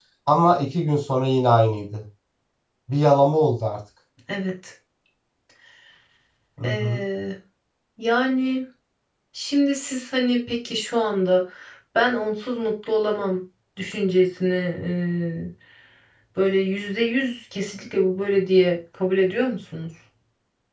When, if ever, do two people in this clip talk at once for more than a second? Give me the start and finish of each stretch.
none

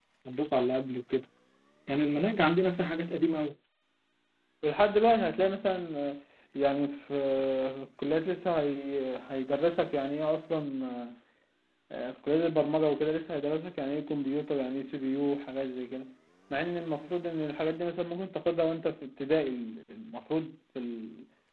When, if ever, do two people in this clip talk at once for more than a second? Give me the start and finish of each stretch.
none

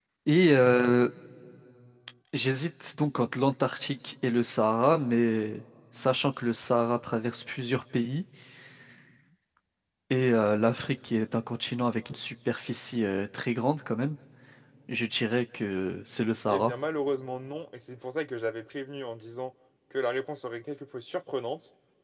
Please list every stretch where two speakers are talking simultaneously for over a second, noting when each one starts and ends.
none

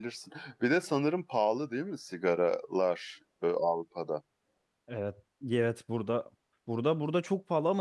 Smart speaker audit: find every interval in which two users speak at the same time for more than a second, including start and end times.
none

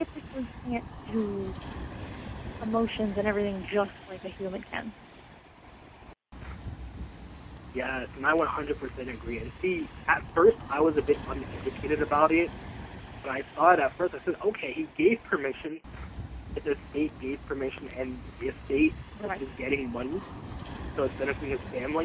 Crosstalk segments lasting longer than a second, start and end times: none

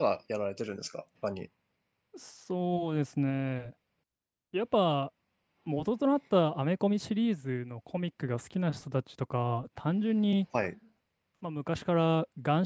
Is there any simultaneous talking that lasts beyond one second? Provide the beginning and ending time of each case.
none

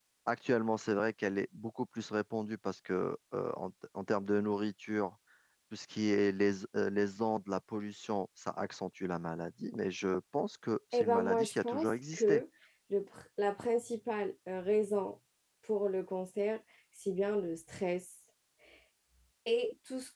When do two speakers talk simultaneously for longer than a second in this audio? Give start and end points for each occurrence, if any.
10.9-12.4

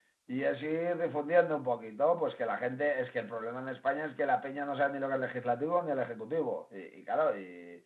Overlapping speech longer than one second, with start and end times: none

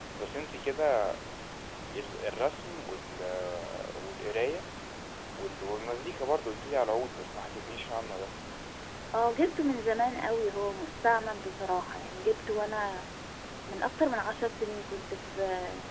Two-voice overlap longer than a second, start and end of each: none

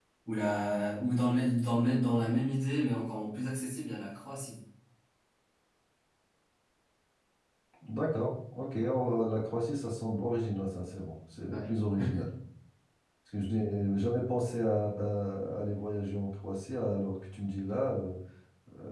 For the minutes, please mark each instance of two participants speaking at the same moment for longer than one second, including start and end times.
none

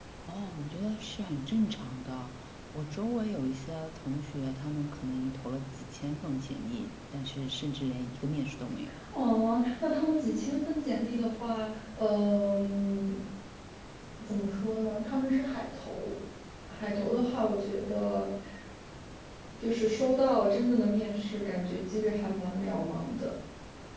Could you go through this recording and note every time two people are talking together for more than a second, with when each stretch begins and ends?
none

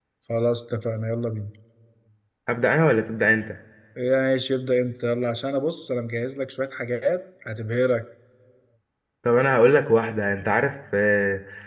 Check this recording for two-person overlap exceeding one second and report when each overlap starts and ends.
none

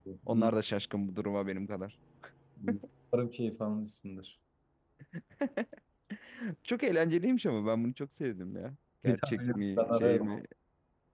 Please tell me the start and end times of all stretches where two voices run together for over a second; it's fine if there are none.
9.0-10.3

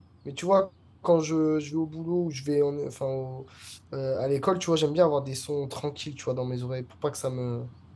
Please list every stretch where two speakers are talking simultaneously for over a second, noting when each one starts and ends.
none

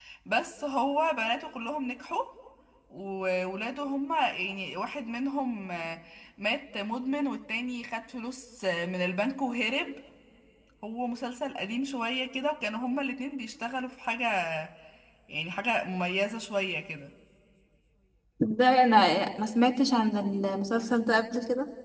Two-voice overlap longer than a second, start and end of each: none

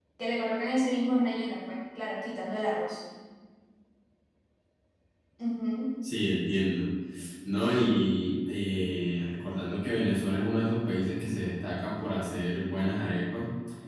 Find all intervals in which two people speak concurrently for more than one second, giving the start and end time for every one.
none

